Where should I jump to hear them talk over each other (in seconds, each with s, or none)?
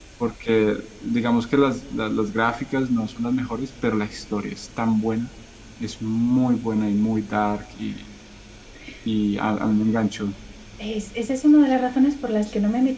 none